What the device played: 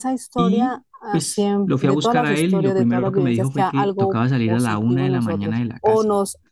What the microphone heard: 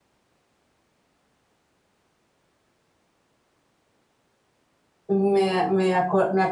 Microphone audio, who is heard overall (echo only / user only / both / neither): user only